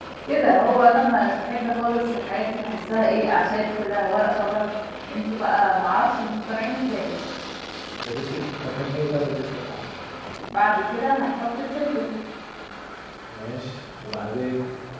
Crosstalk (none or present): none